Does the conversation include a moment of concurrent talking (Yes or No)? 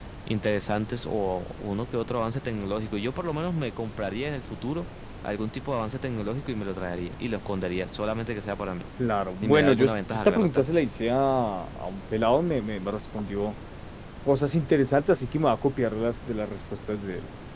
Yes